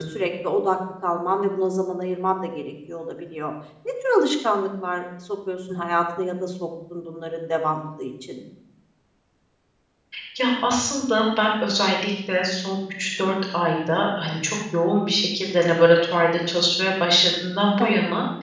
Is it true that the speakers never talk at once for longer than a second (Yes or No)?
Yes